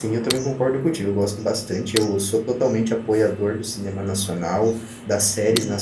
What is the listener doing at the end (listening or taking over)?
listening